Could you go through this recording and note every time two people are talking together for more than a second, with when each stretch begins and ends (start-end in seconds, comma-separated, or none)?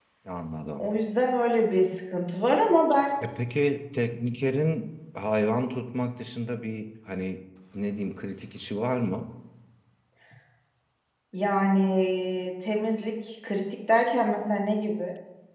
none